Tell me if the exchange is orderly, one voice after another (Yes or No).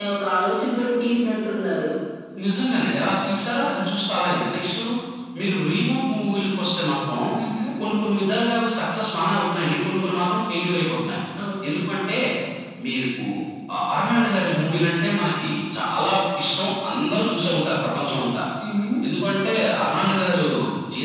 Yes